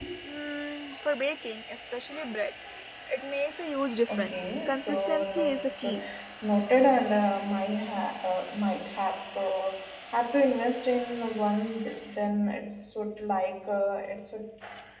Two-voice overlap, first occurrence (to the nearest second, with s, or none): 4 s